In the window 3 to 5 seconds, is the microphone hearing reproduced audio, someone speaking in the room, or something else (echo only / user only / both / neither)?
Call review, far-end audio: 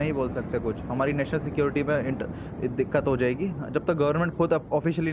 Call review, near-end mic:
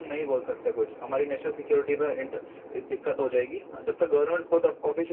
echo only